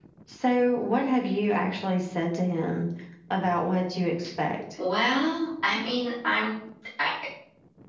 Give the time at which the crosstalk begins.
none

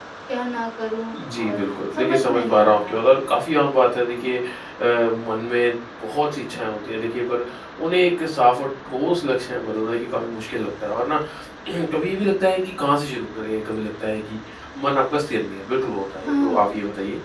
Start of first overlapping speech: 1.3 s

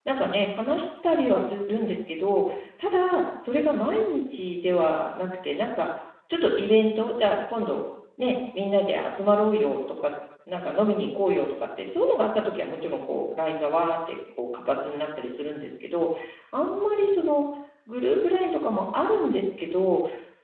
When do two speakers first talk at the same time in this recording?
none

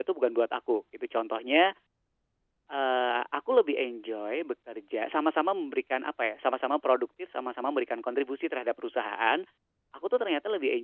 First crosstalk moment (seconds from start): none

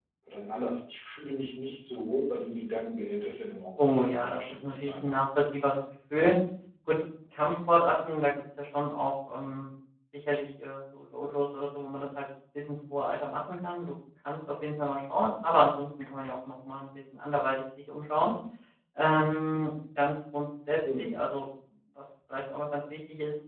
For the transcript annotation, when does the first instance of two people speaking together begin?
3.8 s

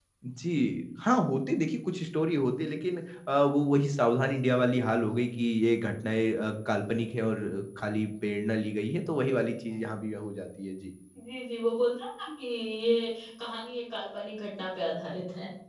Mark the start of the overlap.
none

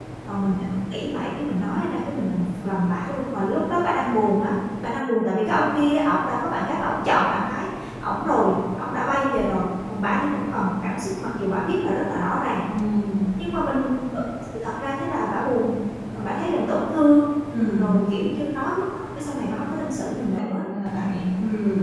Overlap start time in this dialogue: none

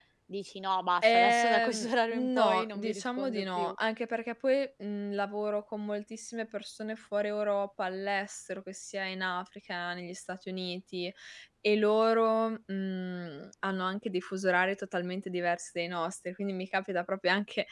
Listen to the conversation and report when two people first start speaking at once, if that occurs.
1.0 s

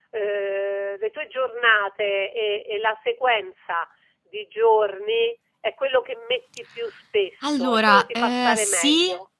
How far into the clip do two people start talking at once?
7.4 s

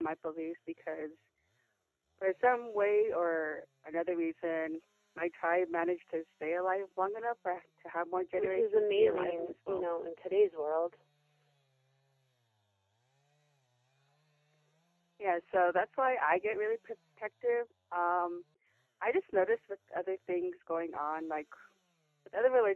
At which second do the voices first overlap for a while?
8.4 s

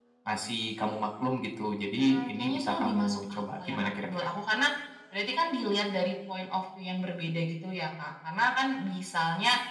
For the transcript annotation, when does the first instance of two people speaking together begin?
2.0 s

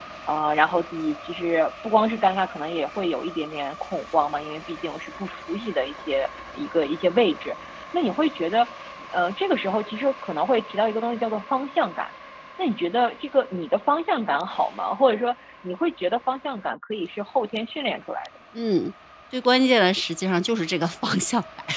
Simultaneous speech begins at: none

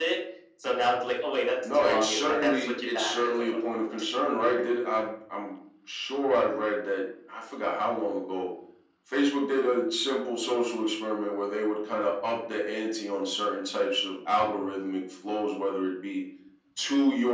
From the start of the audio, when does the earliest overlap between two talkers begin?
1.6 s

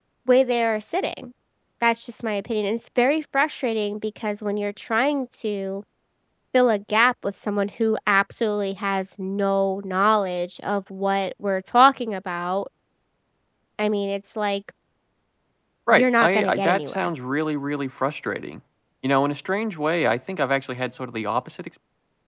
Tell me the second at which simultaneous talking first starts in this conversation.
15.9 s

